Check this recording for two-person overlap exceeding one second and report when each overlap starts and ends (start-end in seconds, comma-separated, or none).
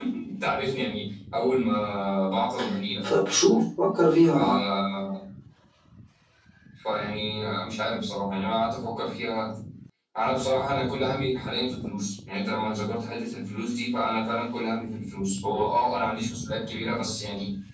none